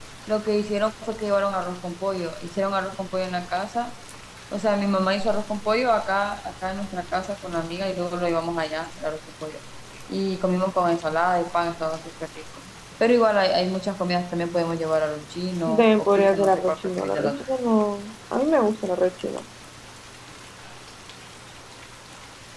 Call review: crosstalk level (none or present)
present